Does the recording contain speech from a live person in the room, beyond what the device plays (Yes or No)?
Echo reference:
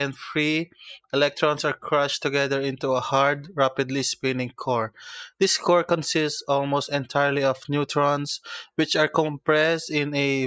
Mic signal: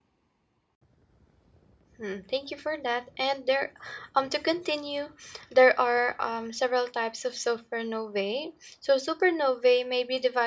Yes